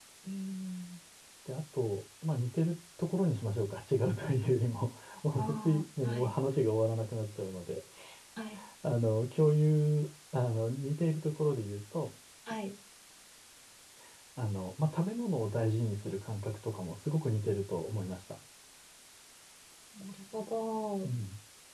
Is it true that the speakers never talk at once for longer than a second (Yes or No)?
Yes